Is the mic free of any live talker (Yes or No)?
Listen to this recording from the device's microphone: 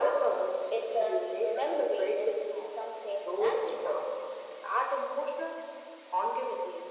Yes